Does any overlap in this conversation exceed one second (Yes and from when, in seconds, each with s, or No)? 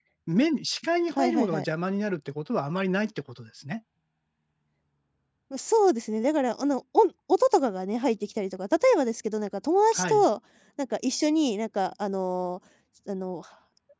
No